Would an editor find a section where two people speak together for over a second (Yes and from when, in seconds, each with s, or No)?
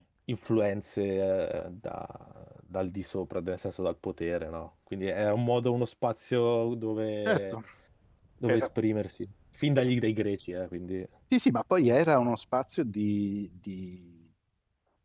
No